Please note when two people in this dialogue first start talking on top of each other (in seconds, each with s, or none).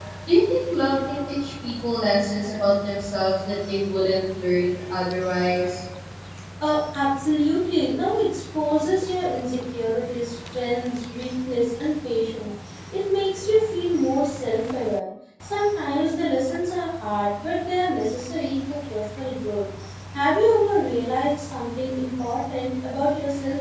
none